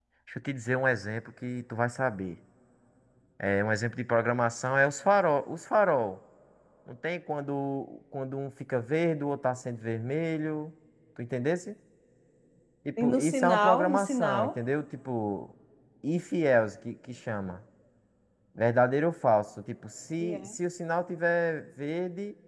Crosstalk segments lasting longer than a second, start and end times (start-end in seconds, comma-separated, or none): 13.0-14.5